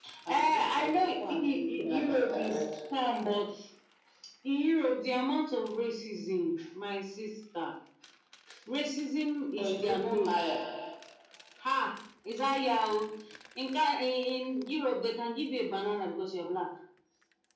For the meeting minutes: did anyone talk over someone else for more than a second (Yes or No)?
Yes